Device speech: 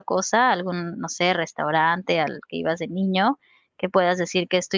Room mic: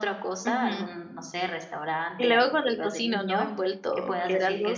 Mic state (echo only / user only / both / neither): both